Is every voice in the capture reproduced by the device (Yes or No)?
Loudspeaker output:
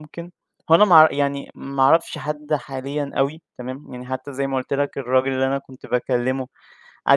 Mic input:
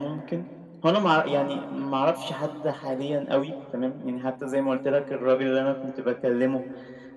Yes